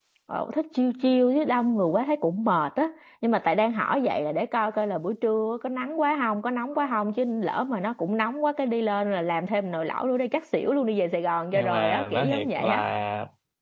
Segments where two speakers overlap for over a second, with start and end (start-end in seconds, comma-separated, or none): 11.5-12.8